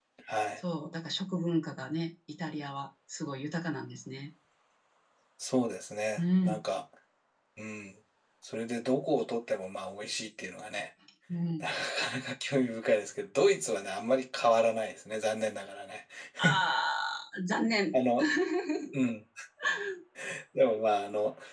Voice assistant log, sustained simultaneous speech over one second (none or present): none